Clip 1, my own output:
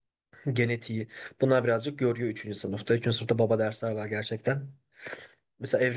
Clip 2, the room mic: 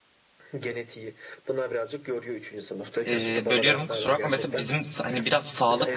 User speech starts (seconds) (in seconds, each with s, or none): 3.0 s